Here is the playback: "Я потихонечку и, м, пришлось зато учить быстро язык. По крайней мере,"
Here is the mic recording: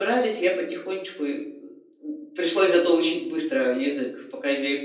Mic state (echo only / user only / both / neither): echo only